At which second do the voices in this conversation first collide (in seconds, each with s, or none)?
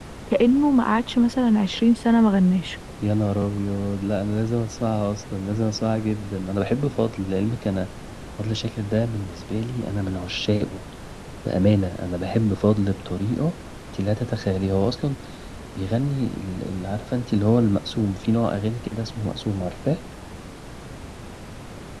none